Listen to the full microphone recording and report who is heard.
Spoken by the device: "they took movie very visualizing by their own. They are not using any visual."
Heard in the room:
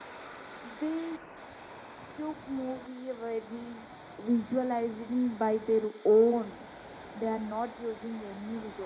echo only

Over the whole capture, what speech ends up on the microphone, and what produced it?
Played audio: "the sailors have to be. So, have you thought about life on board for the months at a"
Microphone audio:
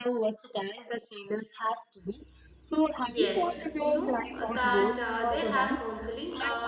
both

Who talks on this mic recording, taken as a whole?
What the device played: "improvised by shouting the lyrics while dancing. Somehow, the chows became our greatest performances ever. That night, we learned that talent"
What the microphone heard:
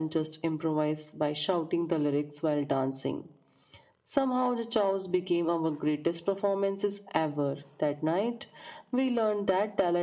echo only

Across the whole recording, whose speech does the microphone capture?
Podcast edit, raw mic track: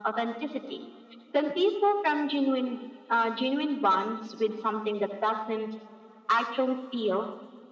echo only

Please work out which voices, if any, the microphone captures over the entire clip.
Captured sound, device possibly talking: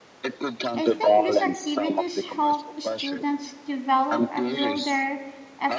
both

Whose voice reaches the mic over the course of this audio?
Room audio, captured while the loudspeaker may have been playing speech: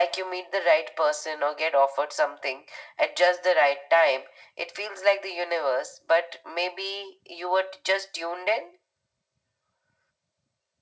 echo only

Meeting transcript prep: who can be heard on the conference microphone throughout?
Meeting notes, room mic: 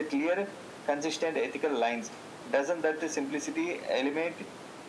echo only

